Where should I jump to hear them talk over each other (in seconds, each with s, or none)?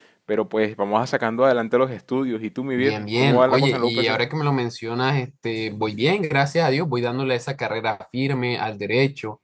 2.8 s